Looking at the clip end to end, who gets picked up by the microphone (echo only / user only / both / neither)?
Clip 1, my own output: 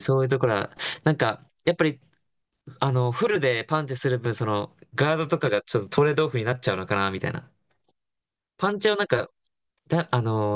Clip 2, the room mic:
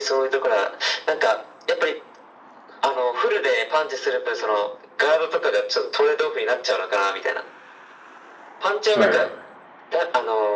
both